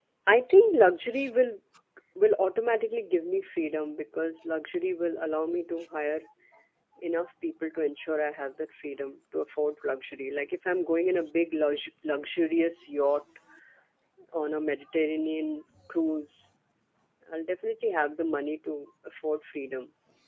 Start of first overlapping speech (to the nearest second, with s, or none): none